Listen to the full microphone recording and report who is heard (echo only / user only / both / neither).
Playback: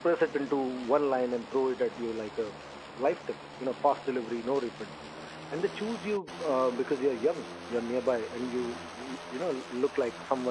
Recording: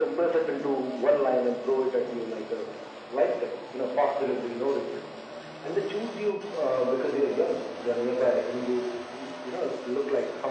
echo only